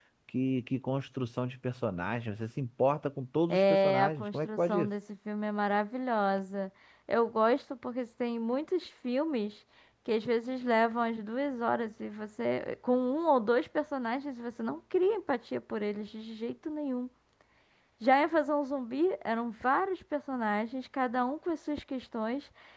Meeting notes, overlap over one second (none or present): present